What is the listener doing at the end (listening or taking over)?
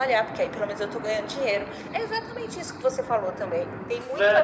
taking over